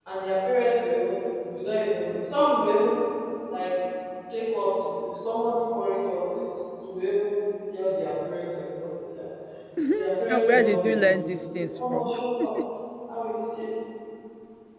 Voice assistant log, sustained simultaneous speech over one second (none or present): present